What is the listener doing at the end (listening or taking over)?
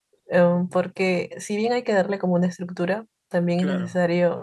listening